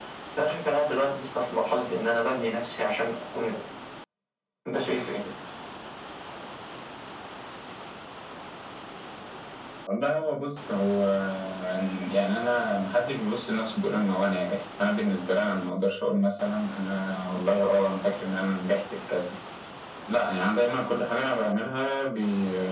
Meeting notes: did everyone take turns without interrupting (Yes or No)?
Yes